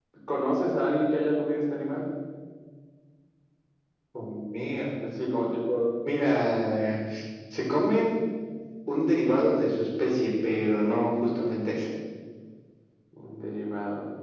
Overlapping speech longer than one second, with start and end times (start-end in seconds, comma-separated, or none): none